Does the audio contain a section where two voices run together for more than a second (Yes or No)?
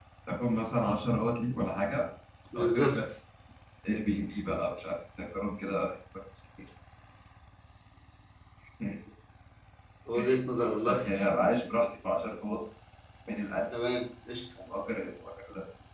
No